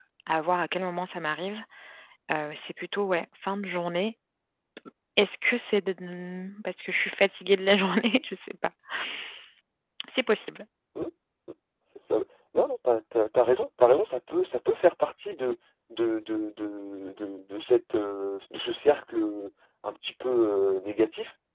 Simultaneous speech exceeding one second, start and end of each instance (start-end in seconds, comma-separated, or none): none